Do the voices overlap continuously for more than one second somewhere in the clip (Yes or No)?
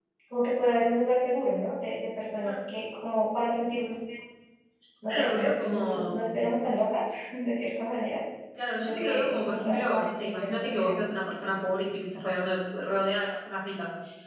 Yes